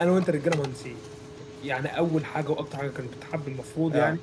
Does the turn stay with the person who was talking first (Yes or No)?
Yes